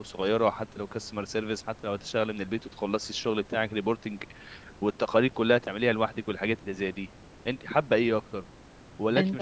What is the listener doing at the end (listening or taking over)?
listening